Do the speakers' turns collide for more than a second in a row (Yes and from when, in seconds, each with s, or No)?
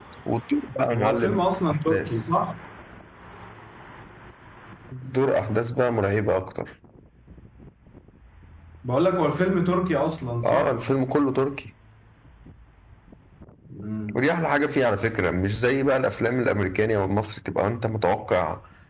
Yes, from 0.9 s